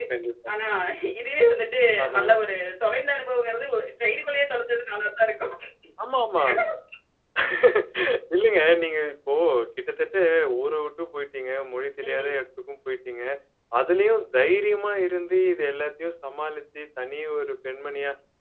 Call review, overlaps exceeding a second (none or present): none